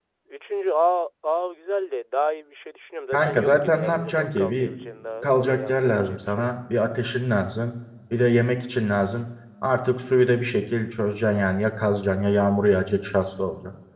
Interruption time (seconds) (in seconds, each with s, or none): 3.1 s